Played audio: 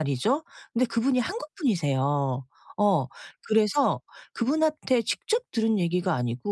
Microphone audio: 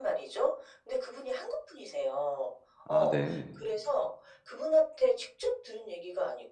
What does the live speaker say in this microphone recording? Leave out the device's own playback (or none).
아 네.